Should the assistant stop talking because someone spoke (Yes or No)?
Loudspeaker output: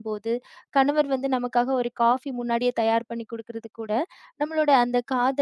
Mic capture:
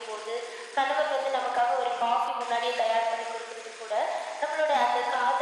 No